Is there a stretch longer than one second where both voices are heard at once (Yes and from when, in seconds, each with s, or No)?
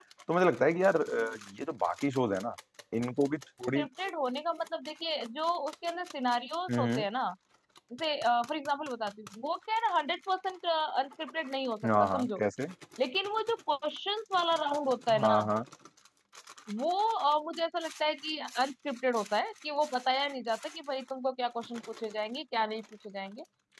No